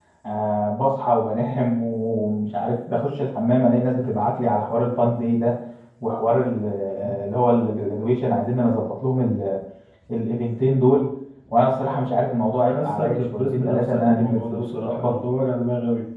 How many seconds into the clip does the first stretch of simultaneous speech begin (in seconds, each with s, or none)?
12.4 s